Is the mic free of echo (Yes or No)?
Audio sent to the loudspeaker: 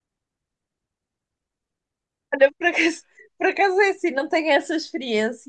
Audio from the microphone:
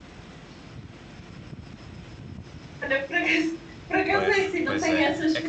No